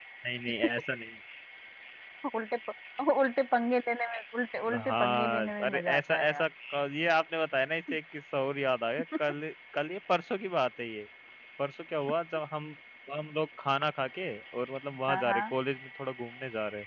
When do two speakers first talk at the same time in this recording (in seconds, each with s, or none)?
4.9 s